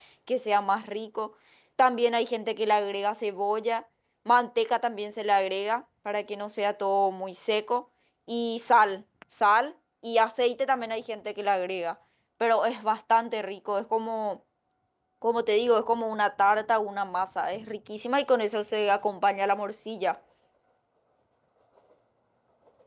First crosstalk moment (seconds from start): none

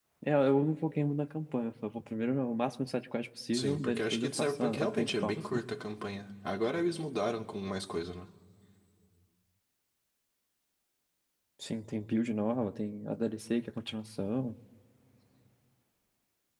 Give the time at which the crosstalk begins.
3.5 s

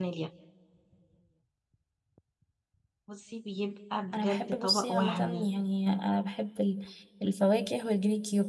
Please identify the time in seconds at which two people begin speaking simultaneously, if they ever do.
4.1 s

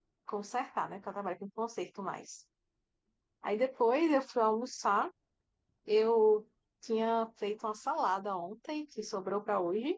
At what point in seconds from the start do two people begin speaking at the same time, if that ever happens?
none

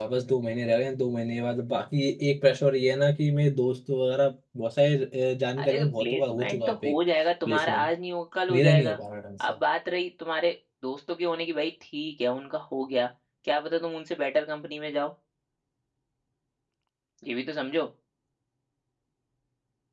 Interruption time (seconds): 5.6 s

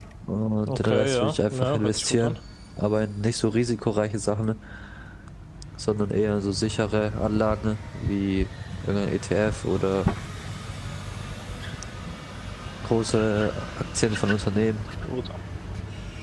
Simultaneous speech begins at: 0.7 s

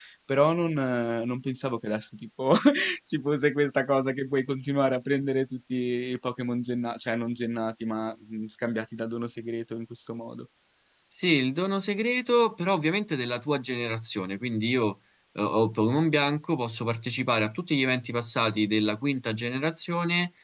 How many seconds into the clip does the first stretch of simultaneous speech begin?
none

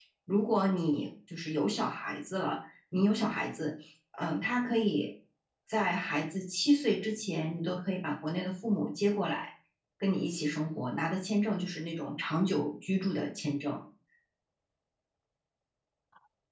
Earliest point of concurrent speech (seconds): none

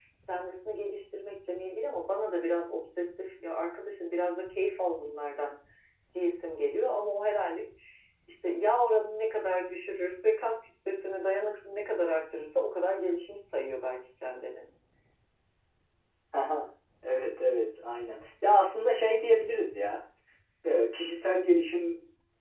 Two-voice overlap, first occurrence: none

